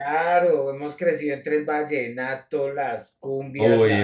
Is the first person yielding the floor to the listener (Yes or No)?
Yes